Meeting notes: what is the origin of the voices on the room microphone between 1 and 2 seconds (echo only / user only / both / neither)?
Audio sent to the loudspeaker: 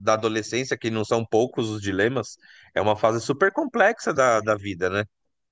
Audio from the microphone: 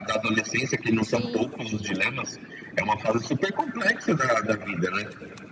both